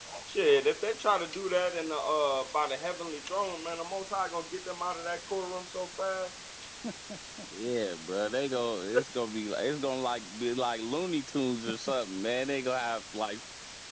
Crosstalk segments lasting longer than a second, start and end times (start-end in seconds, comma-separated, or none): none